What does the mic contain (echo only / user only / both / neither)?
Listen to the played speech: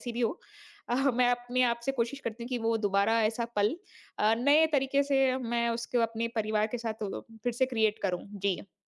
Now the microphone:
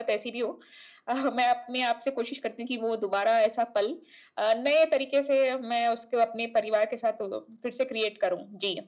echo only